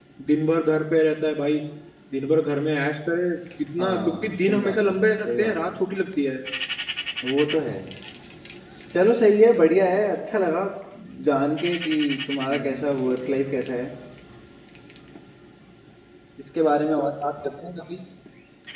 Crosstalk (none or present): present